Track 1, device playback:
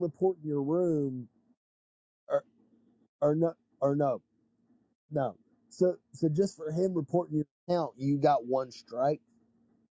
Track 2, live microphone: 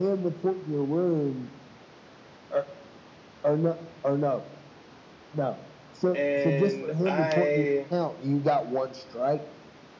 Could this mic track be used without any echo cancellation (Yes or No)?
No